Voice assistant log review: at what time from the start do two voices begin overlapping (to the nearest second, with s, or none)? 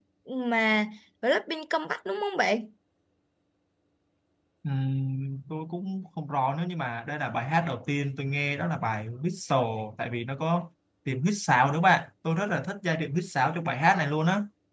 none